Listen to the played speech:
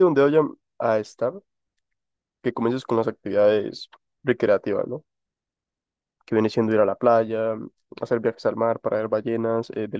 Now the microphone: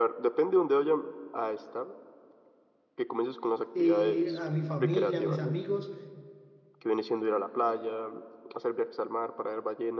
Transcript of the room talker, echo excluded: eh, a mi familia, a mis amigos.

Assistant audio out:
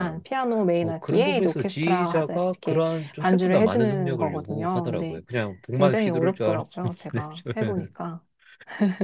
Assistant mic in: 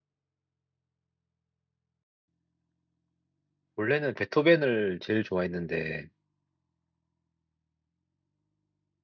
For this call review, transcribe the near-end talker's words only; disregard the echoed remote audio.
원래는 베토벤을 제일 좋아했는데

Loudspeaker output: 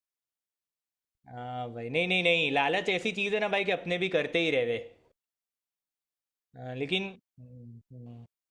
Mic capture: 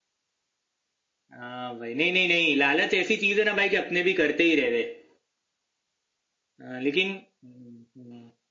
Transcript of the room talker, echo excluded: none

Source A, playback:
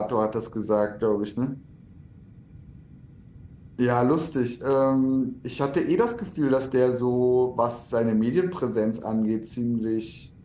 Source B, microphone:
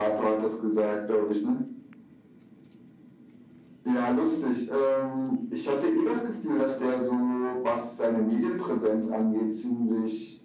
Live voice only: none

